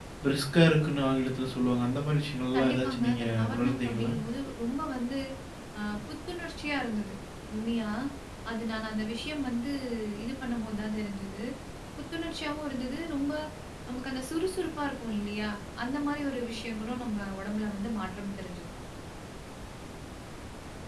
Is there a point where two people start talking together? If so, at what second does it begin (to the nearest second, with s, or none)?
3 s